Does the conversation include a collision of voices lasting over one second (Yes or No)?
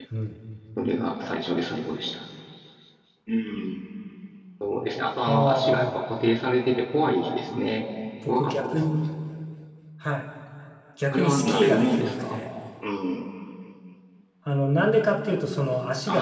Yes